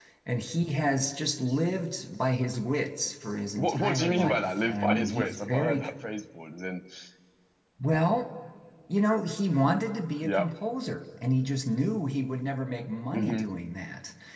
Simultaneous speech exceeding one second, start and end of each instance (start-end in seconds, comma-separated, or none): 3.6-5.8